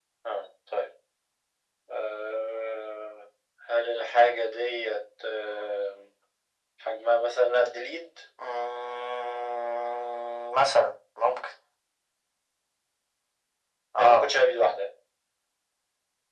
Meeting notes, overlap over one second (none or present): none